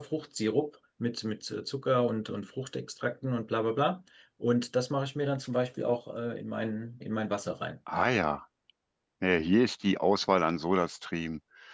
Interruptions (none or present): none